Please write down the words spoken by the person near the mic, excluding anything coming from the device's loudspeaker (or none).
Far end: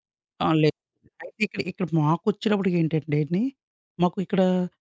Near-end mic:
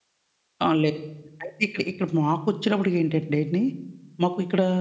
none